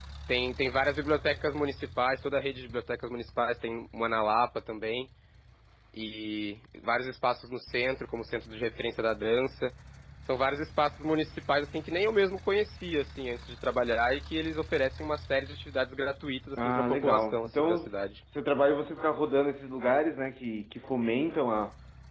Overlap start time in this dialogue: 16.6 s

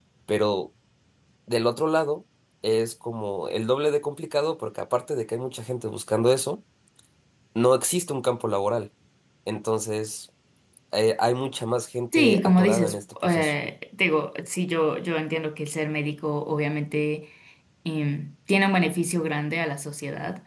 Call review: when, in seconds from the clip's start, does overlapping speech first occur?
12.1 s

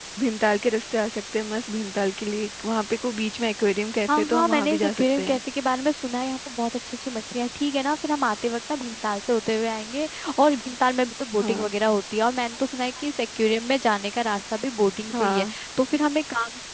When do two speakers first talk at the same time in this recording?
4.2 s

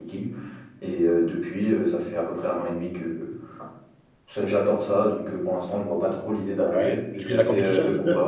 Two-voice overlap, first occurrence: 6.7 s

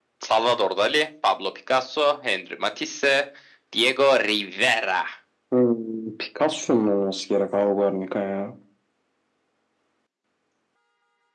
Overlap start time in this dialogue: none

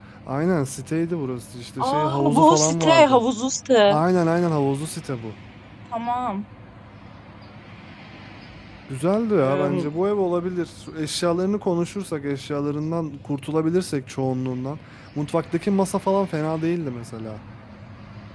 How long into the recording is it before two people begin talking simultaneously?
1.9 s

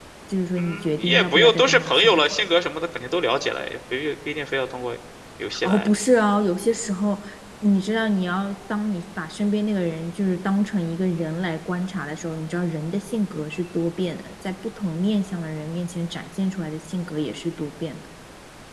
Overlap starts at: 0.6 s

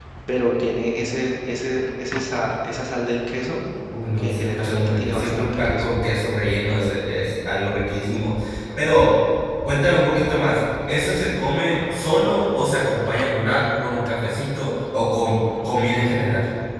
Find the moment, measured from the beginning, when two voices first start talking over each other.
4.2 s

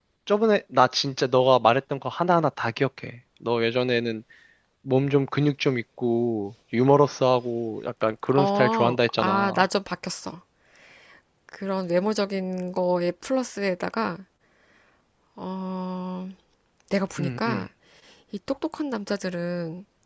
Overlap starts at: 8.4 s

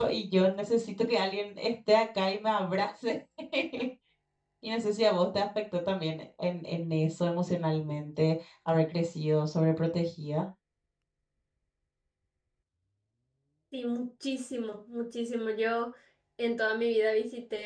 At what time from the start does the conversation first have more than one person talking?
none

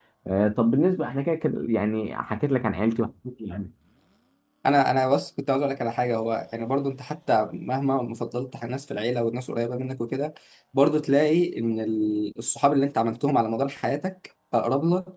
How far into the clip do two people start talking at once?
none

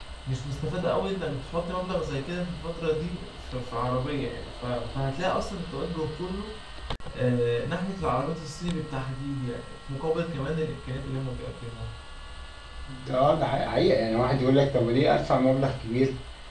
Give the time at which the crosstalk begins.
none

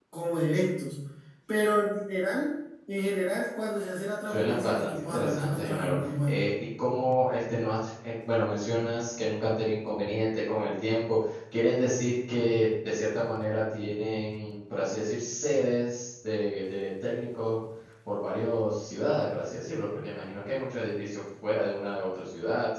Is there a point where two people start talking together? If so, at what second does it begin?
4.3 s

